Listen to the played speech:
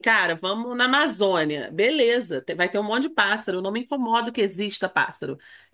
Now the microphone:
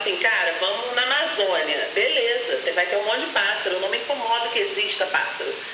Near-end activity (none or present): none